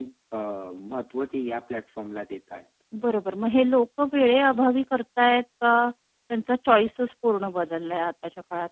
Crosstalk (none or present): none